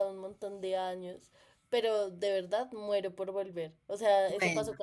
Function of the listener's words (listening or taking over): listening